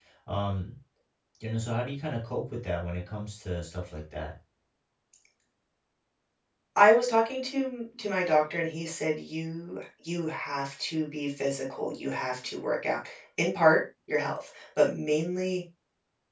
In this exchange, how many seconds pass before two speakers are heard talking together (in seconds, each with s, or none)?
none